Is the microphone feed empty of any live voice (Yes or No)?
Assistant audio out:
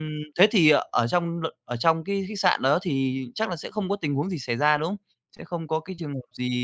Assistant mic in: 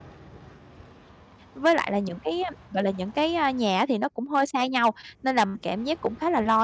No